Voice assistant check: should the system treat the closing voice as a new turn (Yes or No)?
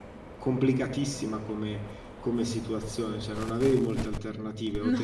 No